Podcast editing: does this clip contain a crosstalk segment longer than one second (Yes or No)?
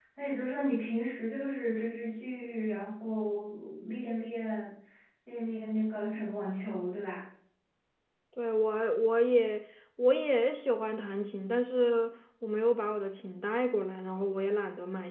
No